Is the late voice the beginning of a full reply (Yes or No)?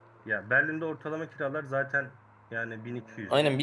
Yes